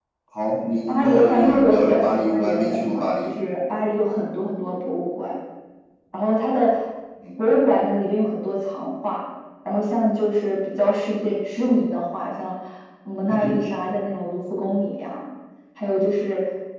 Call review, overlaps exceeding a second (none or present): present